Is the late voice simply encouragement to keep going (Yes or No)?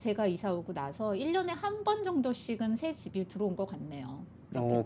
No